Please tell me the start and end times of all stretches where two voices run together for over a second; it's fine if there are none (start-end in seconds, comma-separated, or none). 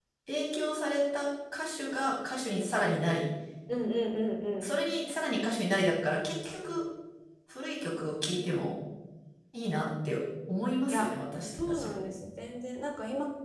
none